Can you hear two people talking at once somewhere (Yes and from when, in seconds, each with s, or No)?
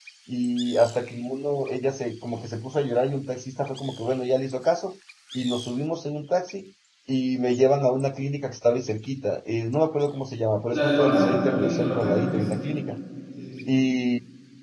Yes, from 10.7 s